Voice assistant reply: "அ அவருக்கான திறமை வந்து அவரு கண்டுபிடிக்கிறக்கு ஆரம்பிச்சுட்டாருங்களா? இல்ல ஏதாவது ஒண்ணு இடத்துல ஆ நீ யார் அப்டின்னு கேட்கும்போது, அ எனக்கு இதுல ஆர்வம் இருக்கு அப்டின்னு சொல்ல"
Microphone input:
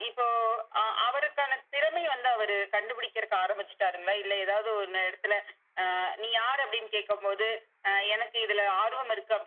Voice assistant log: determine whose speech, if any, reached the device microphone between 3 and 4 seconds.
echo only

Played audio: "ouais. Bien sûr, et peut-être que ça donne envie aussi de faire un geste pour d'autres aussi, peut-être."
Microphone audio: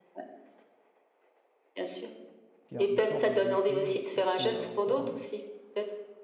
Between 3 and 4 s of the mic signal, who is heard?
both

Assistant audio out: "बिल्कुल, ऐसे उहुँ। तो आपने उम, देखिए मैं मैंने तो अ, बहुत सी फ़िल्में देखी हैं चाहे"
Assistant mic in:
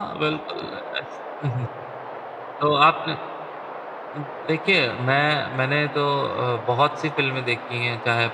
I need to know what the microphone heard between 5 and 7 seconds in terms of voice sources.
echo only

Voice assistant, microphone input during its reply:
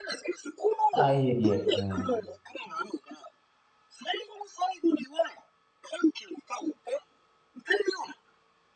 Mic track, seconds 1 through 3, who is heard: both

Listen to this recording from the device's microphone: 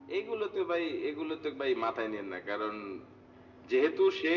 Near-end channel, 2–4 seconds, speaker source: echo only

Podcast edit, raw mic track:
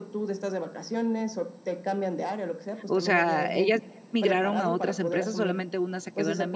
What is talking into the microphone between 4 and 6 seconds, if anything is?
both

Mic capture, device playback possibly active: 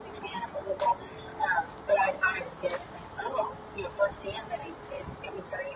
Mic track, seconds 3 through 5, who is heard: echo only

